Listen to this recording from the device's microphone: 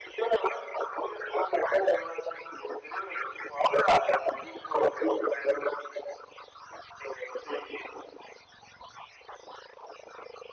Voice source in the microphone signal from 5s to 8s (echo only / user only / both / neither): echo only